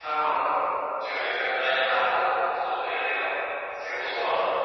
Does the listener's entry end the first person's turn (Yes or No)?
Yes